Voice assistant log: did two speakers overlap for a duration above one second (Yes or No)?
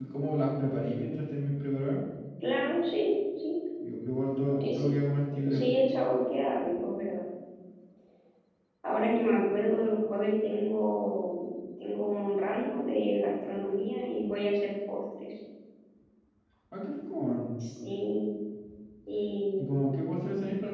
No